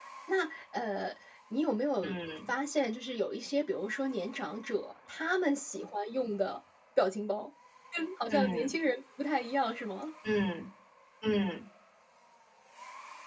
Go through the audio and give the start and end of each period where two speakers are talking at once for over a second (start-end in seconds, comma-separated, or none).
none